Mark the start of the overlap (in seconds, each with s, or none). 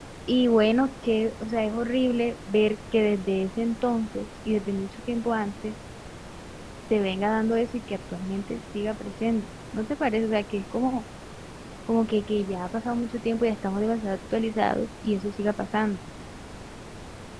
none